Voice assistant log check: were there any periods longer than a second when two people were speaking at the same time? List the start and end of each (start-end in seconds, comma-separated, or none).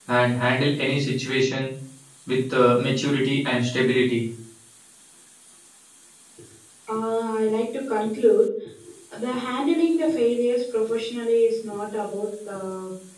none